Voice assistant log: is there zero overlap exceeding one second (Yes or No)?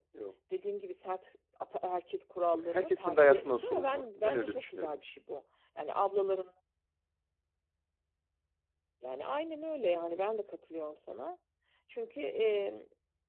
No